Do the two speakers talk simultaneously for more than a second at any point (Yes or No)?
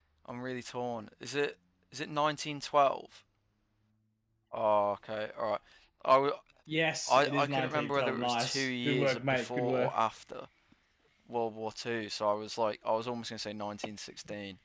Yes